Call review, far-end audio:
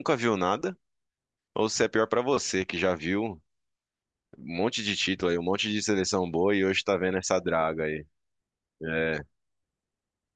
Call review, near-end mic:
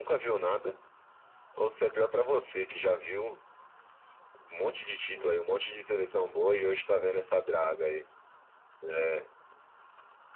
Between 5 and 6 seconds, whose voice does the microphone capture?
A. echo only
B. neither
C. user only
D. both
D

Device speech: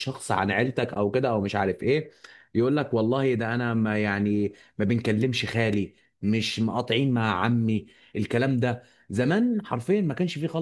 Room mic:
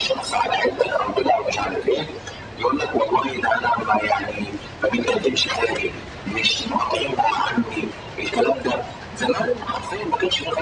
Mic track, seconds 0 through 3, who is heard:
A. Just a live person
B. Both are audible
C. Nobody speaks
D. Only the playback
D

